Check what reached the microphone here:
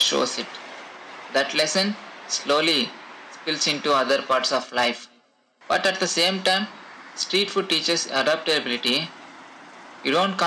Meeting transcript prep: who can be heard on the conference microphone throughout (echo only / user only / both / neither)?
echo only